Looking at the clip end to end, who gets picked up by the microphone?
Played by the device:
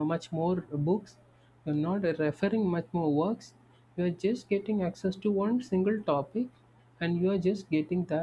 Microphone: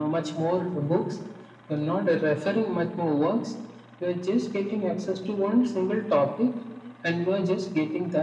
echo only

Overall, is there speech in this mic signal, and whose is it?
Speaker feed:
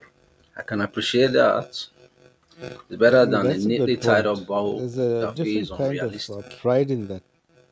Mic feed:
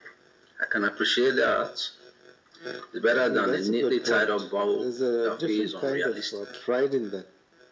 echo only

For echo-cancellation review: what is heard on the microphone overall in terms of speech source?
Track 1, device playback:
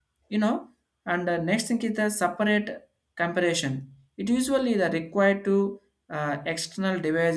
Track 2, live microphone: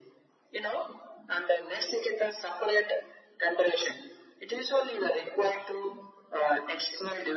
echo only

